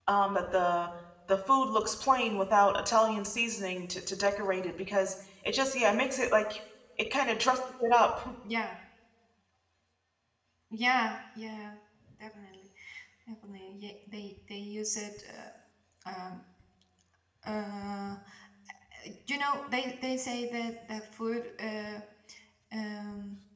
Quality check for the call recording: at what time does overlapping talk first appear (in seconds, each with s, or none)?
none